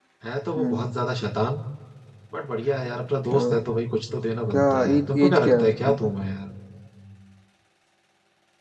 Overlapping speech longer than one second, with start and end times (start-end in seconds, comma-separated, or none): 4.5-6.0